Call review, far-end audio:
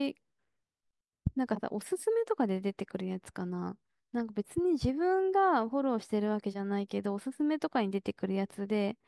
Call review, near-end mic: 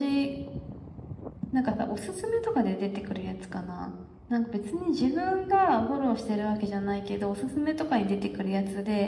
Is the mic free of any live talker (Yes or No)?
Yes